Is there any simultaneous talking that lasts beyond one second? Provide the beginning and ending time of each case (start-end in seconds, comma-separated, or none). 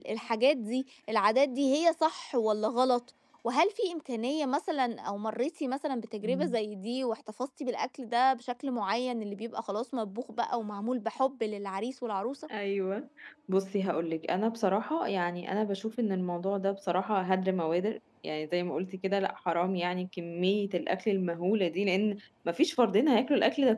none